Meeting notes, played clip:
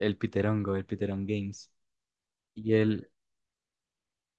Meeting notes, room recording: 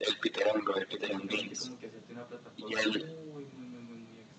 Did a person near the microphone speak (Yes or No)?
Yes